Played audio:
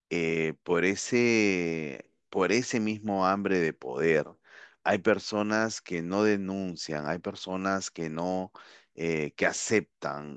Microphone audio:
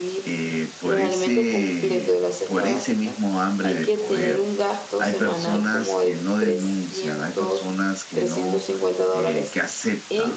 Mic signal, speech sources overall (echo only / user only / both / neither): both